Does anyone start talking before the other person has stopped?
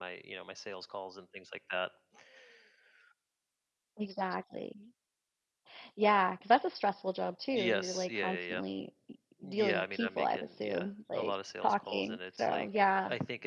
Yes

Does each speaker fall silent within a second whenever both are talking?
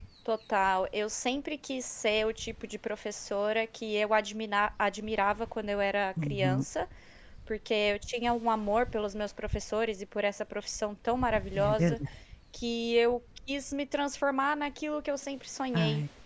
Yes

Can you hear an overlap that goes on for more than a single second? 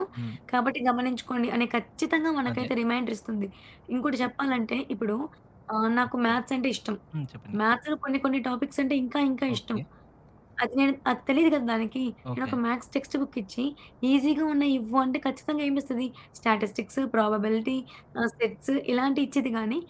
No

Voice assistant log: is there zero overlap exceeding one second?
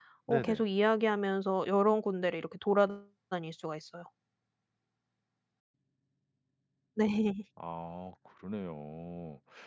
Yes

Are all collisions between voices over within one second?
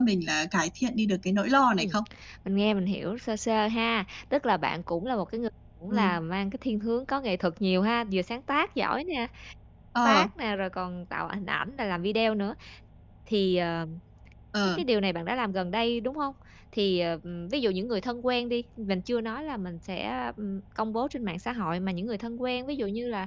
Yes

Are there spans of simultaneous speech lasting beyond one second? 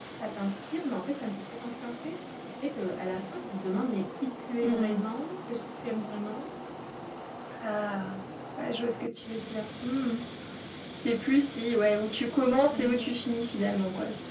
No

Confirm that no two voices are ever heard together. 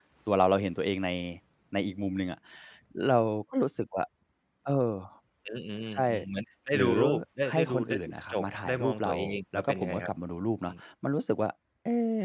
No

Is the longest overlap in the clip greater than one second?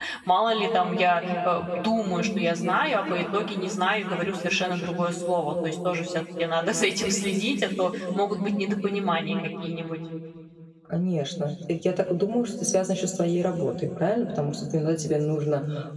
No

